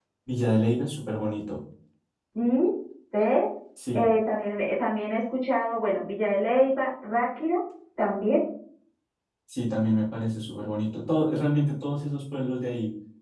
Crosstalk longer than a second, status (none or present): none